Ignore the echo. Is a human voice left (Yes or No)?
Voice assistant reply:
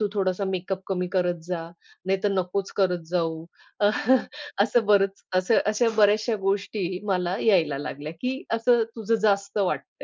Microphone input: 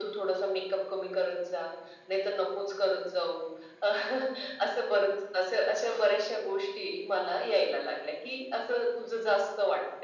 No